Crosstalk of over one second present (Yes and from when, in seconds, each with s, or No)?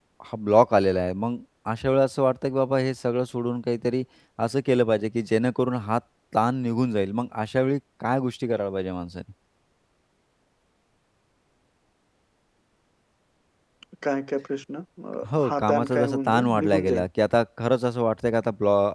Yes, from 15.2 s